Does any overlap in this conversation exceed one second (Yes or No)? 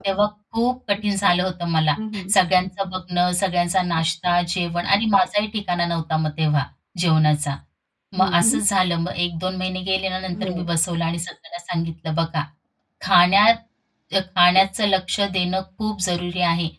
No